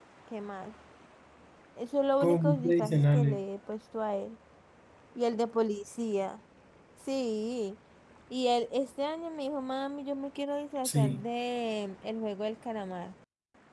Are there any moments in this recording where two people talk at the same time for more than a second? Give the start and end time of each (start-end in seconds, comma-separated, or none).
2.2-3.4